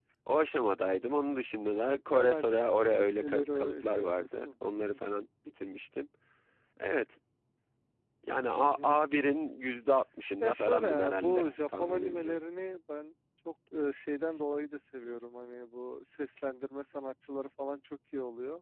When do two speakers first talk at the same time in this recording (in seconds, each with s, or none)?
1.8 s